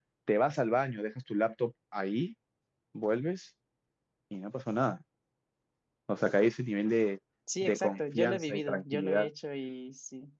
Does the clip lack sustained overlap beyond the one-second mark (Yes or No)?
No